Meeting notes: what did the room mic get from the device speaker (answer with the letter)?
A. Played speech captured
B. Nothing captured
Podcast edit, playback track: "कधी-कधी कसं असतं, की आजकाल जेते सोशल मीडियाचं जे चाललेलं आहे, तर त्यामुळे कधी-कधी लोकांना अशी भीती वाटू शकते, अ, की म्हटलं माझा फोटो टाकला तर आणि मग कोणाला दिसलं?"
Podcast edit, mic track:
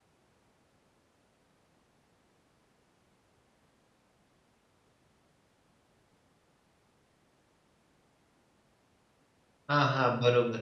B